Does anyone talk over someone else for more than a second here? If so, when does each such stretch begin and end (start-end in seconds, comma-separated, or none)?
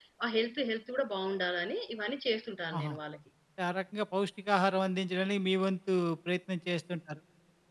none